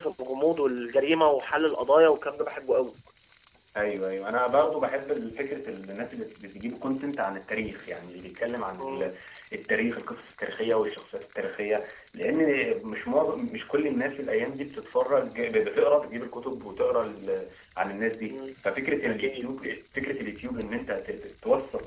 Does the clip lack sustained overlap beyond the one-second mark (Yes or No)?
Yes